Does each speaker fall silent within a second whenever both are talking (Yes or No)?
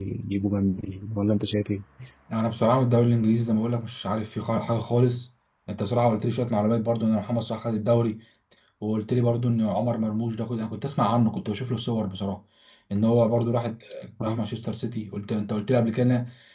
Yes